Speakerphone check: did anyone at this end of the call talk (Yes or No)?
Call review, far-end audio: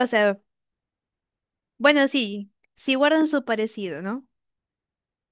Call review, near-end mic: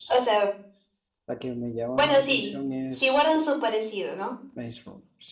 Yes